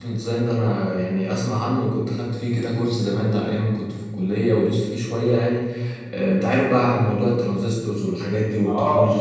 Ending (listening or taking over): taking over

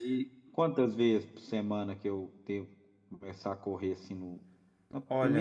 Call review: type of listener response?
taking over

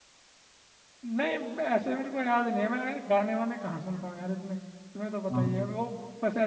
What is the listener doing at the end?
listening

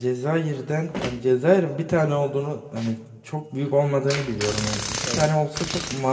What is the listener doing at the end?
listening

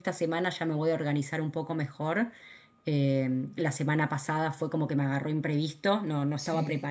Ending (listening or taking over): listening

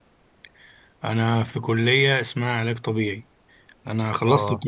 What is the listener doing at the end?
listening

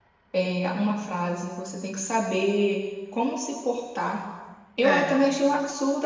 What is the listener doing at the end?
listening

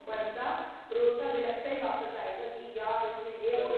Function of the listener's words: listening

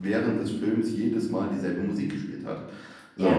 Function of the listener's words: listening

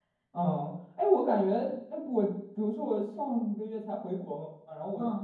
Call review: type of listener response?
listening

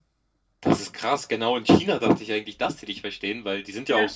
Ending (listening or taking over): listening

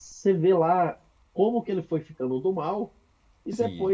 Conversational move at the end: listening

